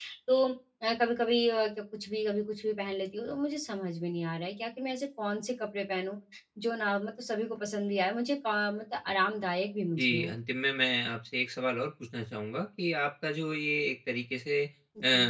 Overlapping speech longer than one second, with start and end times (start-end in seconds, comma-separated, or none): none